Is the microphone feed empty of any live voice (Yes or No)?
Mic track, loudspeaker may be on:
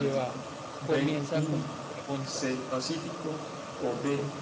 No